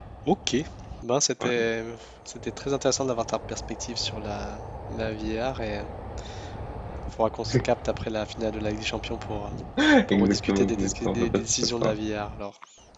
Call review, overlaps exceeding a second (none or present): present